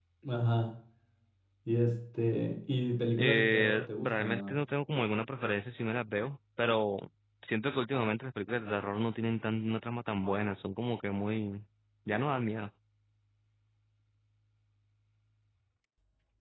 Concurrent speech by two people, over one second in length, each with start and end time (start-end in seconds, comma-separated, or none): 3.2-4.6